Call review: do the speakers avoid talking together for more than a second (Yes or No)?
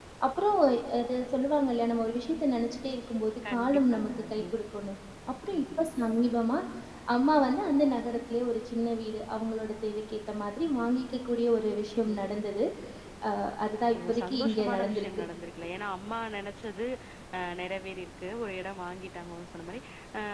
No